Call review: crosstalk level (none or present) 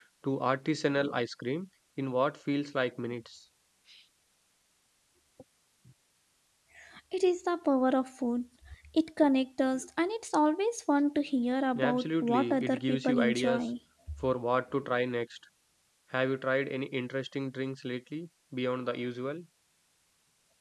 present